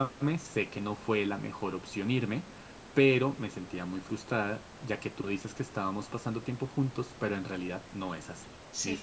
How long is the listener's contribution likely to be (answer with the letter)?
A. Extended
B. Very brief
B